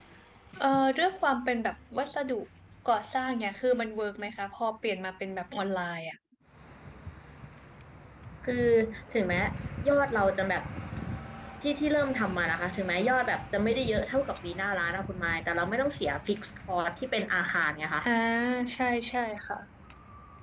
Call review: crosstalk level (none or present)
none